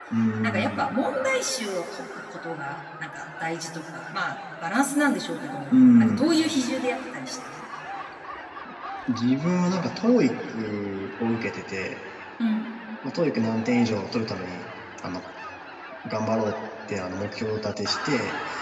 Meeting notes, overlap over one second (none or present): none